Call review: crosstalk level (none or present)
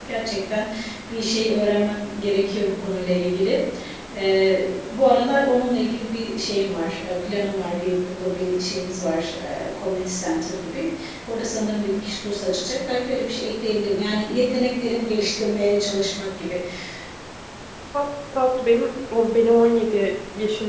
none